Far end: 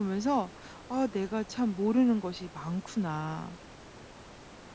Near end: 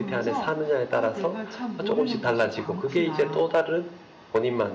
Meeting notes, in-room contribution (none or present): present